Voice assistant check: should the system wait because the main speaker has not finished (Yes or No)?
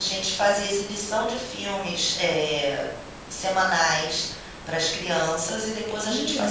Yes